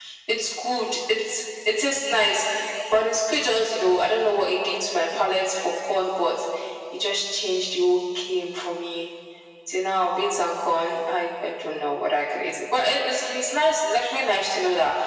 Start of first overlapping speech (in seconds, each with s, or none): none